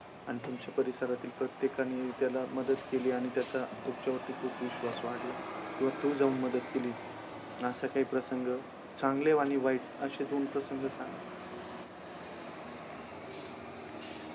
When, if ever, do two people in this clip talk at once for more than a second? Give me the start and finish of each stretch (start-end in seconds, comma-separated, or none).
none